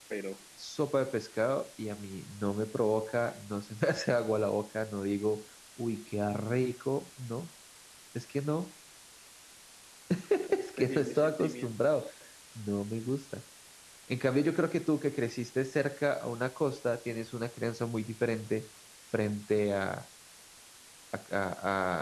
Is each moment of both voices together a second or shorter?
No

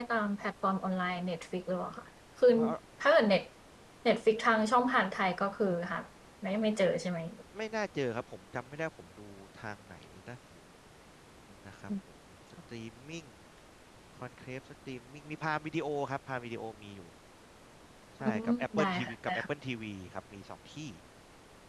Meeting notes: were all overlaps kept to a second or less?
No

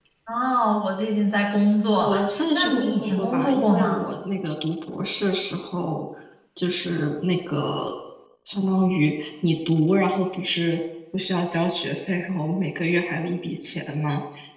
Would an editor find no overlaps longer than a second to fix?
No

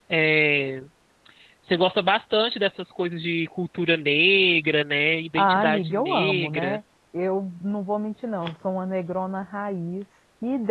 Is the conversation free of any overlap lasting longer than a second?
No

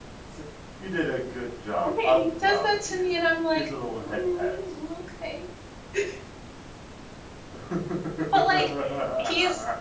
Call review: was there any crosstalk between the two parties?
Yes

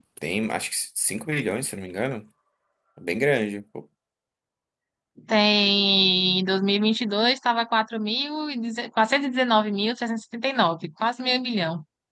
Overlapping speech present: No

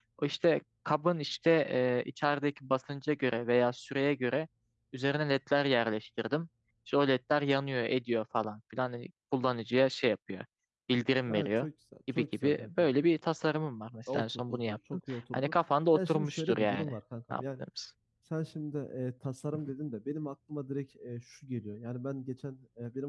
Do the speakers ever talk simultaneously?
Yes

